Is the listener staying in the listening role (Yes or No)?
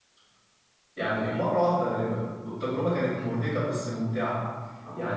Yes